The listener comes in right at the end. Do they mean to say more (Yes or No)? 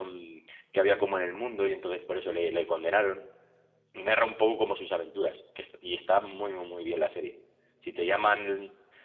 No